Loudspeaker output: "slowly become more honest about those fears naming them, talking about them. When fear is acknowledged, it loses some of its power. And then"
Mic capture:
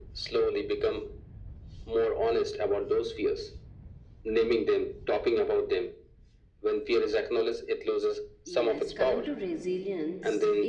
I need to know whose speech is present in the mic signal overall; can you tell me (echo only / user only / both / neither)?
both